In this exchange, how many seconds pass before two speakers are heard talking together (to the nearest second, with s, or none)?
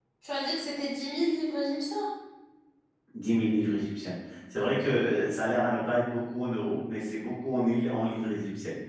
none